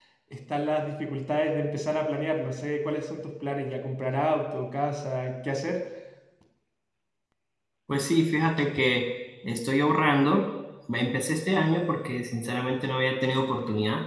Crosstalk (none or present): none